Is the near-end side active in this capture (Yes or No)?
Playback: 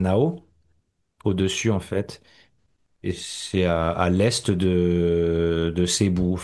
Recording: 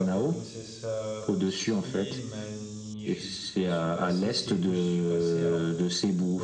Yes